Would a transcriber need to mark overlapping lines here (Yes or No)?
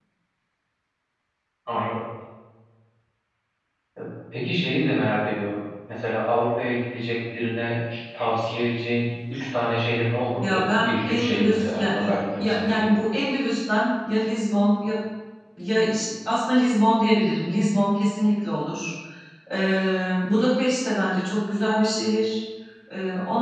Yes